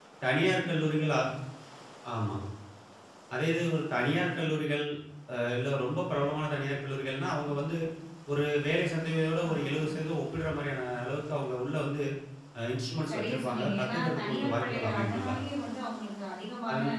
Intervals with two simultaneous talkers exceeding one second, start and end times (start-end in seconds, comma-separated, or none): 13.1-15.3